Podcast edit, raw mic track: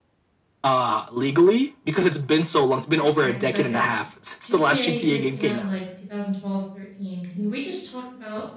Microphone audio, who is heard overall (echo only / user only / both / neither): both